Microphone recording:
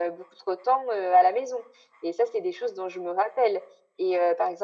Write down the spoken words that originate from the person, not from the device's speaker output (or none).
none